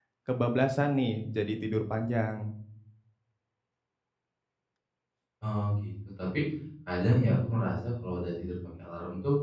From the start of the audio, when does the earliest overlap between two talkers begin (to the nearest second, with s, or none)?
none